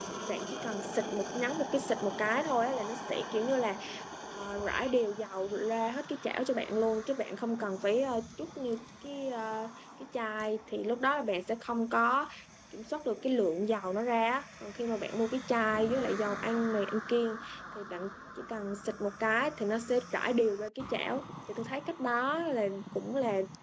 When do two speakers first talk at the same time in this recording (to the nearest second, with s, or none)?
none